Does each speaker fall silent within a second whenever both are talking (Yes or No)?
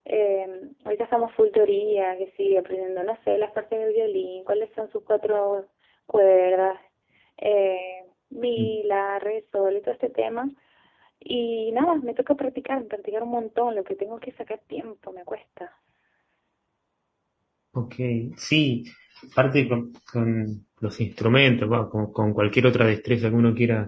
Yes